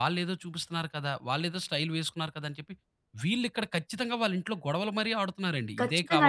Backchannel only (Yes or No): No